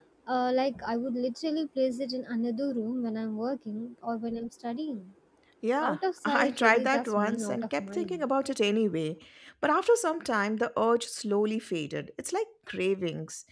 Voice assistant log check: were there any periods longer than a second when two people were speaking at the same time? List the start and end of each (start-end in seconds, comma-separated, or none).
5.8-8.2